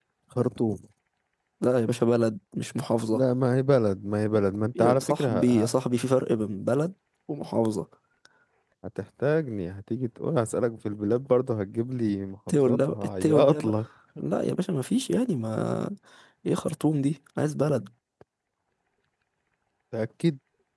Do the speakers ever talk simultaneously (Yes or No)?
Yes